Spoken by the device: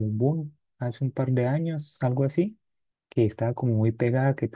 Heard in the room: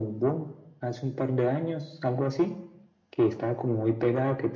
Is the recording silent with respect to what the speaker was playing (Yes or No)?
No